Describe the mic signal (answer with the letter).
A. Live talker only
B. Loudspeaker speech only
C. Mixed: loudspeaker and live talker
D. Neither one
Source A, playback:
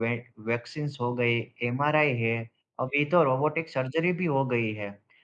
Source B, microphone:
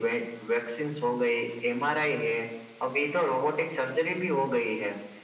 B